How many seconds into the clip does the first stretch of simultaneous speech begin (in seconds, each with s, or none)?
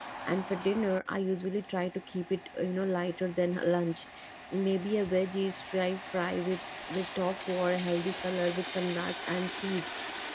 none